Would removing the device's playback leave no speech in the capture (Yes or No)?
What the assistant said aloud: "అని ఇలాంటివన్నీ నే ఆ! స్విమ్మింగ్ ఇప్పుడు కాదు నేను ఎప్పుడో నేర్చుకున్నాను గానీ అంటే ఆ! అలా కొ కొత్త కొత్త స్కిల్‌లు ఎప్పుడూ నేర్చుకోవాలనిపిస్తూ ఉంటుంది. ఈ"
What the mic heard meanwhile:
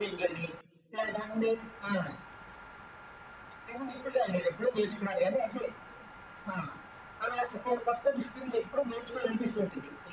Yes